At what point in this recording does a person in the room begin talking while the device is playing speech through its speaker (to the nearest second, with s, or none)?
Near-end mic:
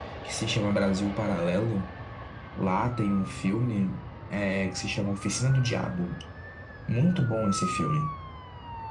none